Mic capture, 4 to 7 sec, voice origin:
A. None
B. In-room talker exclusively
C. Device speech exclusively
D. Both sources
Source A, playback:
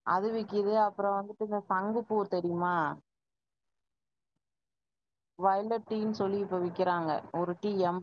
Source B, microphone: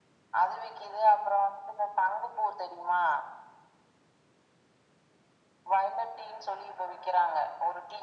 C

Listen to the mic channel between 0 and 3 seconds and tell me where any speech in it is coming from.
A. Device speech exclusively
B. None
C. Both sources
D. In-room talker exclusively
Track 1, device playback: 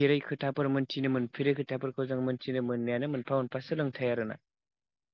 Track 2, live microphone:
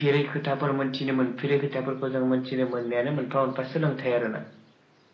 A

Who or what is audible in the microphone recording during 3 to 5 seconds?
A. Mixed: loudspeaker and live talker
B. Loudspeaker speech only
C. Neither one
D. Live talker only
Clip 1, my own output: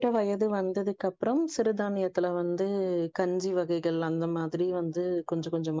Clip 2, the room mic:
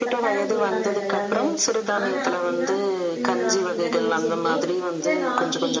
A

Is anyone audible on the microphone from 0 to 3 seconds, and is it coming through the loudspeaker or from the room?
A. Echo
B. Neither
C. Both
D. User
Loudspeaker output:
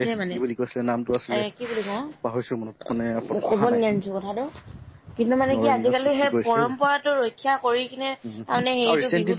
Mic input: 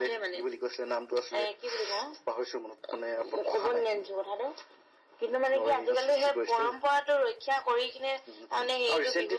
A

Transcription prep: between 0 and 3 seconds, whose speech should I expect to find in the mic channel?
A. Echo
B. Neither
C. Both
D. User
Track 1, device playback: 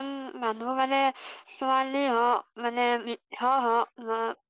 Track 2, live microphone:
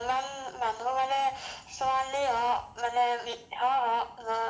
A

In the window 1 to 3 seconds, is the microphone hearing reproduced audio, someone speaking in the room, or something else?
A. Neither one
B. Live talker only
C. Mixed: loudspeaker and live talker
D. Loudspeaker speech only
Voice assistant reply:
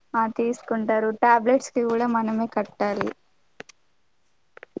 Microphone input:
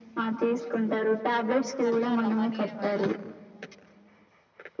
C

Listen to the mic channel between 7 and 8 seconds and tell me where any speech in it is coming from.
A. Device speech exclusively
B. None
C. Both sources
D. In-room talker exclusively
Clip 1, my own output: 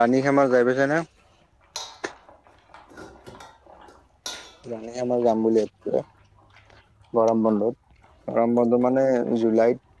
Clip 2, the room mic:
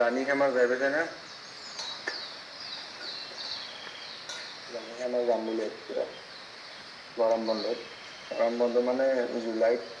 A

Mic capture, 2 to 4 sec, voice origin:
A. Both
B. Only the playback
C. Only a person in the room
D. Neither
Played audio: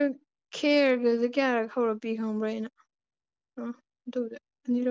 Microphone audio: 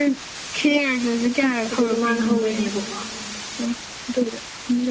A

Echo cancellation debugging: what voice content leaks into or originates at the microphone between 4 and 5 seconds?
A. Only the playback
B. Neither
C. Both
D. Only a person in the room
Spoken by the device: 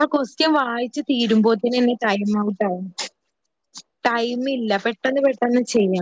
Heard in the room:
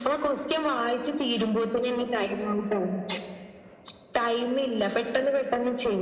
A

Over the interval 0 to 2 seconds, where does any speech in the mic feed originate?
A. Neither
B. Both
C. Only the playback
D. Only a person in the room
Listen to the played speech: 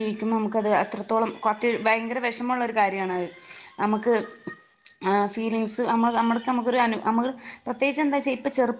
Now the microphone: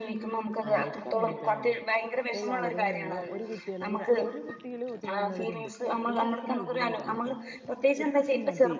B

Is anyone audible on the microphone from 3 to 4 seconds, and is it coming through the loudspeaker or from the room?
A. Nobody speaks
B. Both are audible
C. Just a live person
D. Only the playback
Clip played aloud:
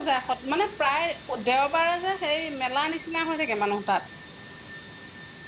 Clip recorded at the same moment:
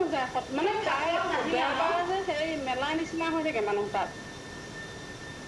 D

